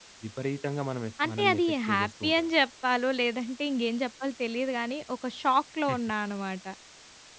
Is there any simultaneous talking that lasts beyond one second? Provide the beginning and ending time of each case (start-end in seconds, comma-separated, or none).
1.2-2.5